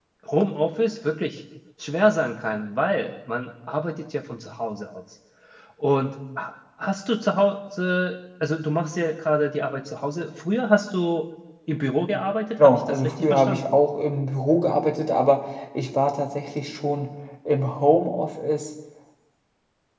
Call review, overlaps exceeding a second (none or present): present